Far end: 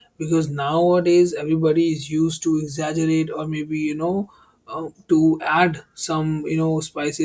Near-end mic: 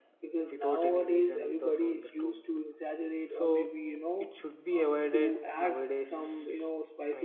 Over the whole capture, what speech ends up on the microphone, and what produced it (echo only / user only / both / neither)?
both